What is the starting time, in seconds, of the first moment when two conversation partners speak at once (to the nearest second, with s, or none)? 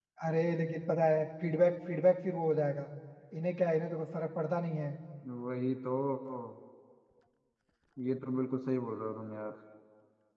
none